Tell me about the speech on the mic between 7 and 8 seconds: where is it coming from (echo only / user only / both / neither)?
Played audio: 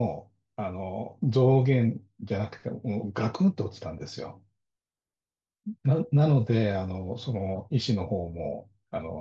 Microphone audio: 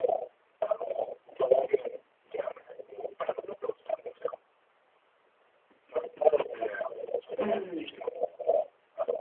both